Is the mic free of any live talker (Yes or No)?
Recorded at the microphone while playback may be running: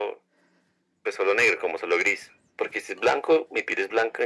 Yes